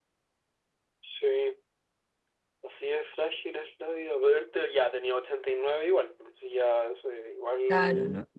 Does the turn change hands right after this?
Yes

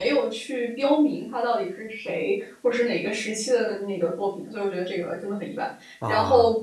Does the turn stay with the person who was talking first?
Yes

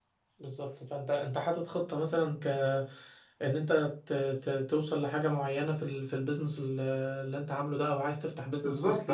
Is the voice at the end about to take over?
Yes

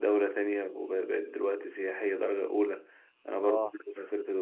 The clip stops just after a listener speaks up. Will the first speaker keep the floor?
Yes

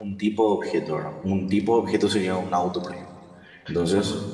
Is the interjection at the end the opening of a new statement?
No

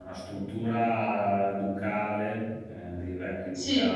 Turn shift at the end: Yes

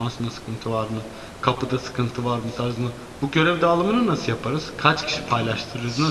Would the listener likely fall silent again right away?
No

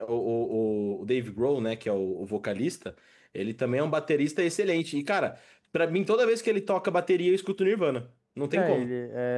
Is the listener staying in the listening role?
No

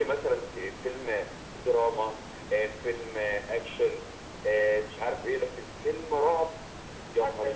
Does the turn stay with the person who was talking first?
No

